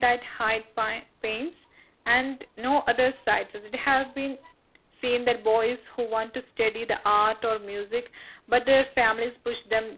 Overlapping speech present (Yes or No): No